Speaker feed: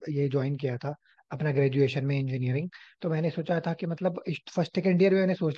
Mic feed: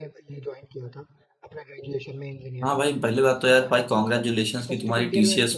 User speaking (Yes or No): Yes